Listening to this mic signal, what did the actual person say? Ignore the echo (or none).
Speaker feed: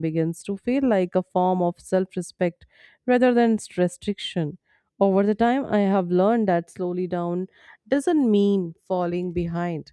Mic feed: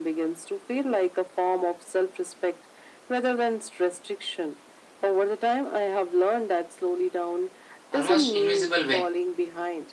almost invisible way